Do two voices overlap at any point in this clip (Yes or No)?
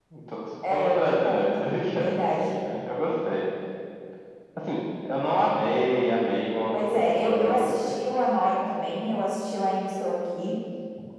Yes